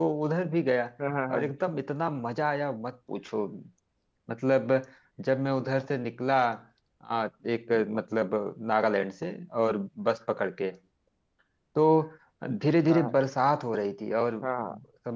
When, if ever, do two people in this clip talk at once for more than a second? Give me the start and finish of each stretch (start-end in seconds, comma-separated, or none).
none